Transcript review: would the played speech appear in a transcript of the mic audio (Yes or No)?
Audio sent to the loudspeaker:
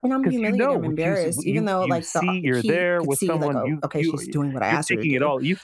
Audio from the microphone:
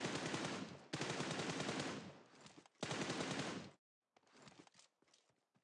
No